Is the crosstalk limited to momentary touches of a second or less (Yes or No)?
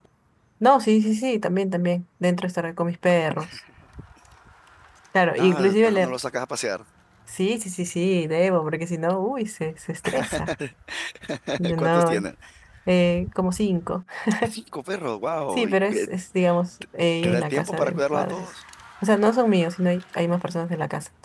No